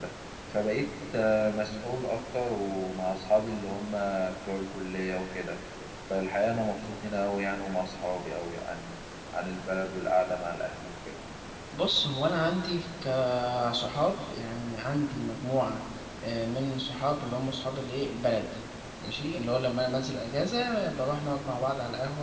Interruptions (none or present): none